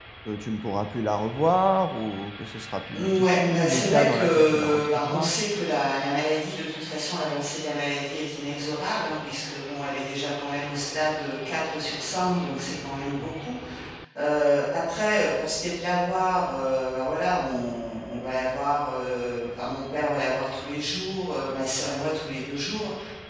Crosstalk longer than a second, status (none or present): present